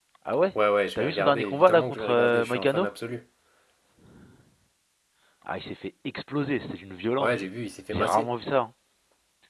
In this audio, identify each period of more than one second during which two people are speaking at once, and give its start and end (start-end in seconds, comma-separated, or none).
0.9-2.9